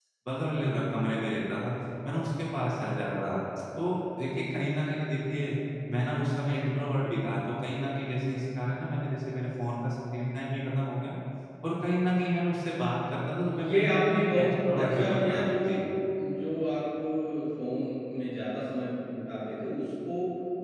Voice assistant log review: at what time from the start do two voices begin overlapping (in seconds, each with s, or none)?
13.5 s